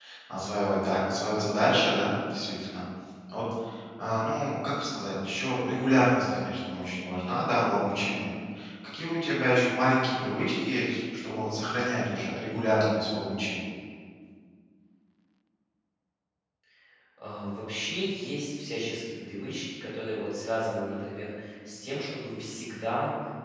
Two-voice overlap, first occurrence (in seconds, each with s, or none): none